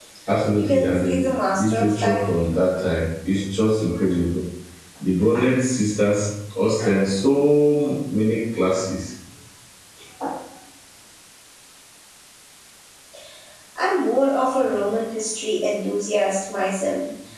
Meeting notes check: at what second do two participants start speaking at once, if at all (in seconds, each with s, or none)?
0.6 s